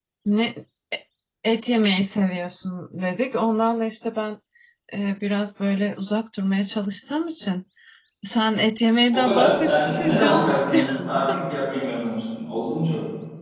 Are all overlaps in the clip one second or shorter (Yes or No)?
No